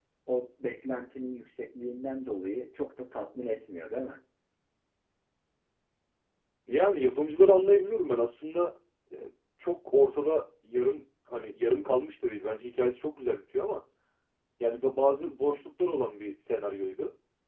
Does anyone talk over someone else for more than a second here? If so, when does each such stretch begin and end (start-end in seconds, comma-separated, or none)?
none